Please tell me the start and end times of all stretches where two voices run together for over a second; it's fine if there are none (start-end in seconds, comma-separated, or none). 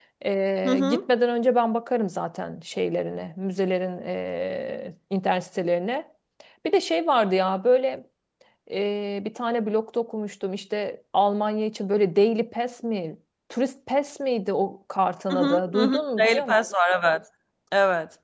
15.3-16.5